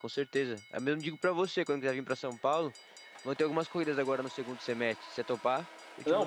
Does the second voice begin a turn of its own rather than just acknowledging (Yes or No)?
Yes